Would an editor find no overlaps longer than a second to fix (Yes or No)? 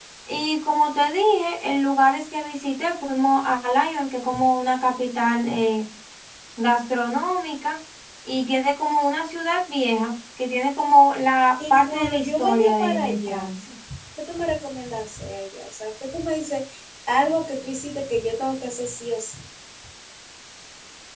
No